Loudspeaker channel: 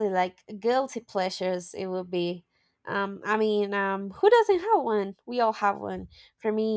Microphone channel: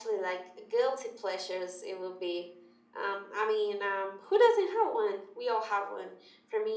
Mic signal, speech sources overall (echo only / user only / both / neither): echo only